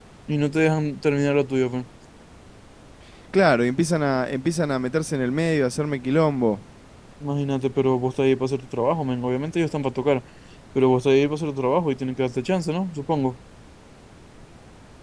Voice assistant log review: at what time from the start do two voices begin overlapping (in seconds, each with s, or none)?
none